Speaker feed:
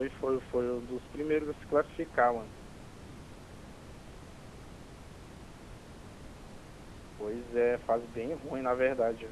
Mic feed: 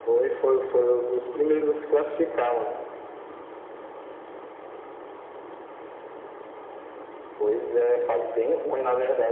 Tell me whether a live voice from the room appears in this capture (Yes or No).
No